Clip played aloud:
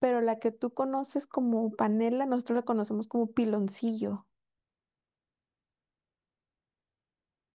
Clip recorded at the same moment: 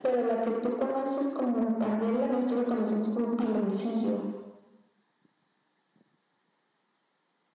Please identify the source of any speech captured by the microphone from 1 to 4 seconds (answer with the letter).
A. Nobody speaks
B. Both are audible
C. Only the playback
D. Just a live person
C